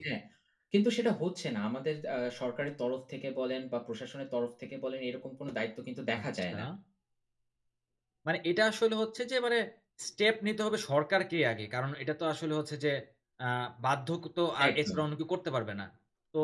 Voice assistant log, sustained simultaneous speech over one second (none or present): none